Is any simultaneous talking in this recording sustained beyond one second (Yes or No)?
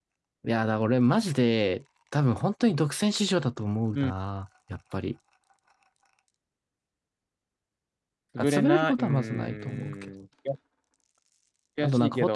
Yes